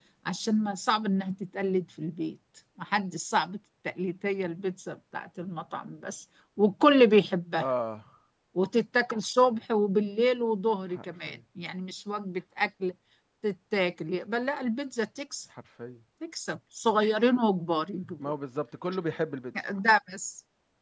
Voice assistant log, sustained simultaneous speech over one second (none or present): none